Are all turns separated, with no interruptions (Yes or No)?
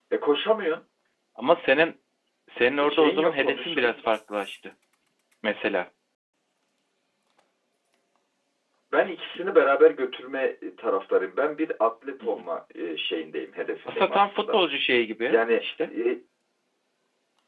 No